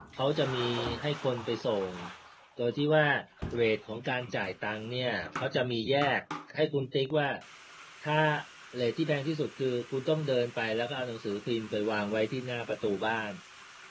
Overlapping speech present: No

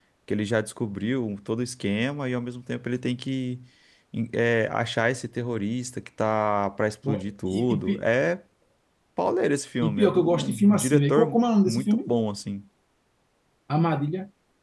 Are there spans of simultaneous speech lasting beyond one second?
Yes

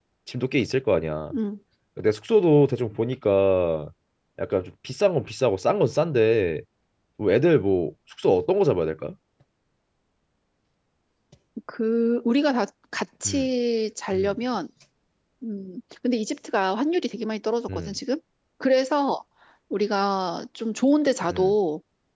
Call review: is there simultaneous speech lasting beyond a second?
No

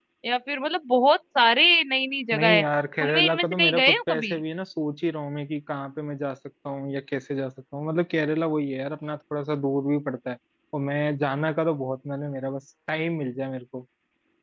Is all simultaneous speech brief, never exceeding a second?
No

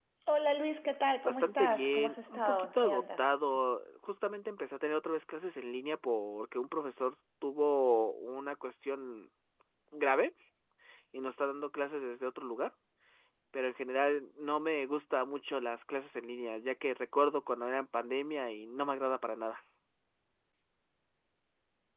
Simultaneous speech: Yes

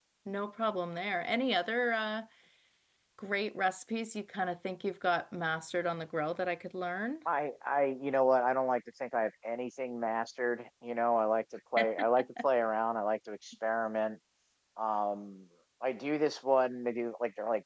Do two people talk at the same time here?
No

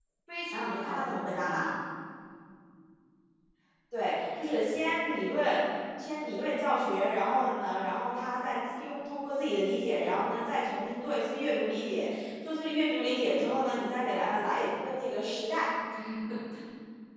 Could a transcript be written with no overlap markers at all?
No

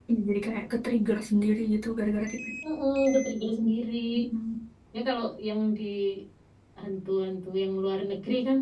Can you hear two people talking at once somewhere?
No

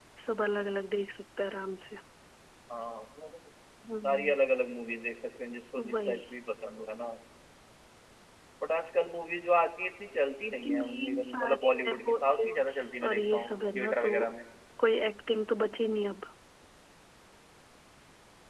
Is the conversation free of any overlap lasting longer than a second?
No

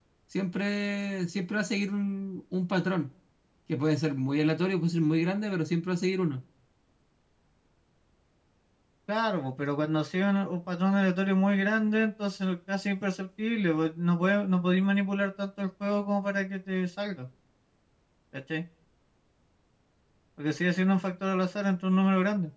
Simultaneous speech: No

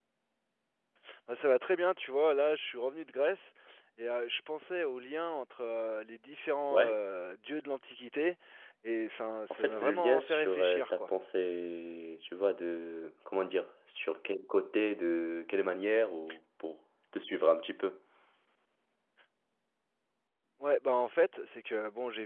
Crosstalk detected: Yes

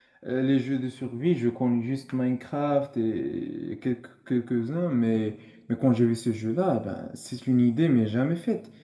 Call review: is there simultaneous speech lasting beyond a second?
No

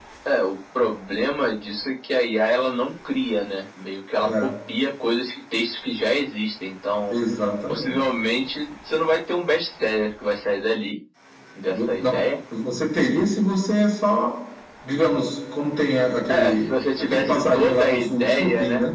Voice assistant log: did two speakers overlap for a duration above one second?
Yes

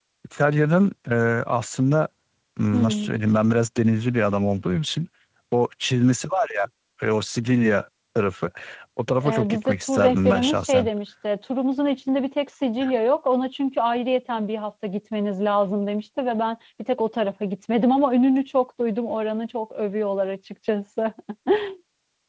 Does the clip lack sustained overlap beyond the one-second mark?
No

